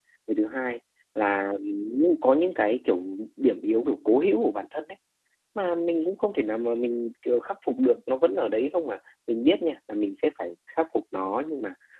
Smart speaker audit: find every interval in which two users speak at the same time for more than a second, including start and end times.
none

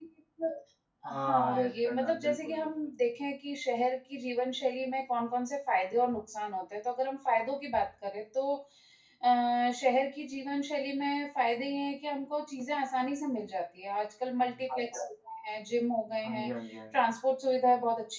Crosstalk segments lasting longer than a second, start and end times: 1.2-2.7

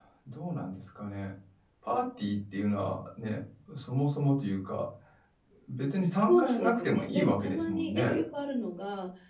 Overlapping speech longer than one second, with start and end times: 6.3-8.2

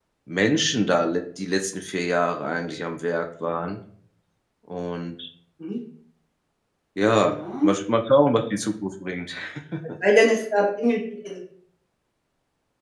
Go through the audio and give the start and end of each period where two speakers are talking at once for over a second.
none

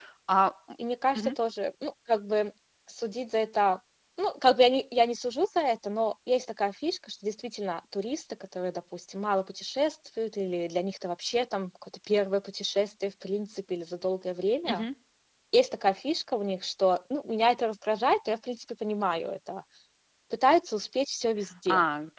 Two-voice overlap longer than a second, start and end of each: none

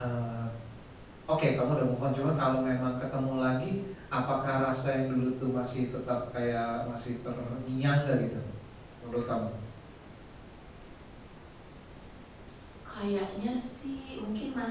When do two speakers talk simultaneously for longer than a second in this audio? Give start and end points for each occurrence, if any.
none

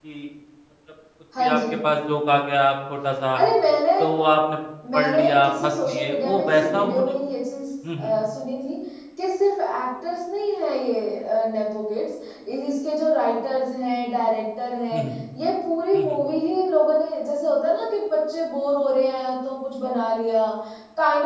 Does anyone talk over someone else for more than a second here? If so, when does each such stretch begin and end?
4.9-7.1

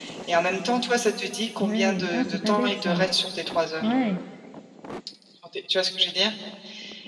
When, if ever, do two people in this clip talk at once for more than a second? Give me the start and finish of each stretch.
1.6-3.0

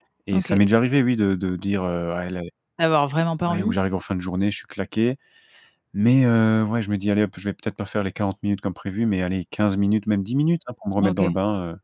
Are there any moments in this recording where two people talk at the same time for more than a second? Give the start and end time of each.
none

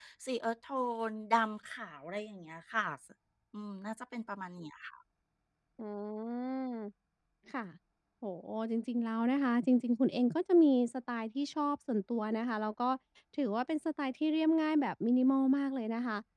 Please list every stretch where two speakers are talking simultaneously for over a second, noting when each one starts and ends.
none

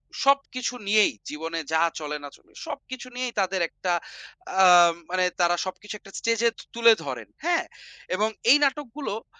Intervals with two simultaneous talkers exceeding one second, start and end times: none

